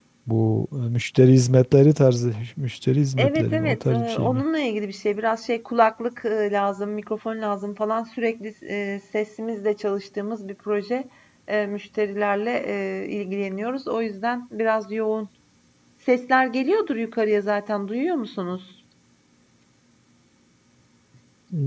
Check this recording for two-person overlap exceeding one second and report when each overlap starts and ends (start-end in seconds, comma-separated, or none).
3.2-4.4